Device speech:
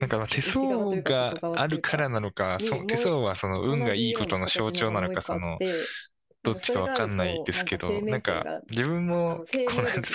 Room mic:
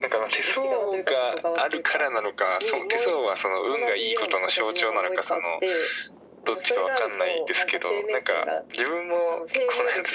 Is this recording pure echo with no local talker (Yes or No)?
Yes